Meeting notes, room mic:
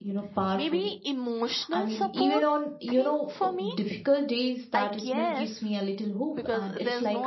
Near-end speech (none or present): present